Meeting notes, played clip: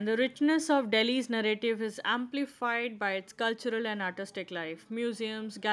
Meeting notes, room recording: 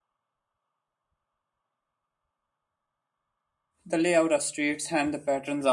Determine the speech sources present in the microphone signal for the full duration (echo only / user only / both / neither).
user only